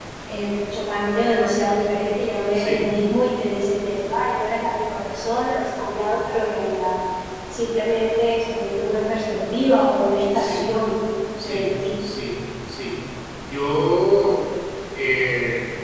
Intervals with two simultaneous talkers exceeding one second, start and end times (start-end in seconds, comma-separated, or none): none